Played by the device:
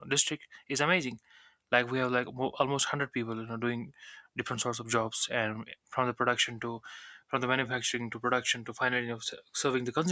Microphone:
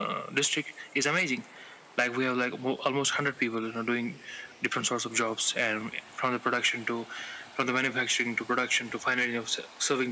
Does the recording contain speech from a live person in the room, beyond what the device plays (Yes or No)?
No